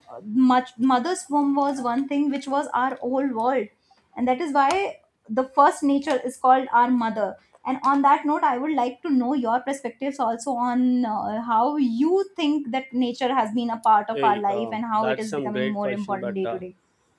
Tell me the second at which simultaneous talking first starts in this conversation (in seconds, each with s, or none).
14.1 s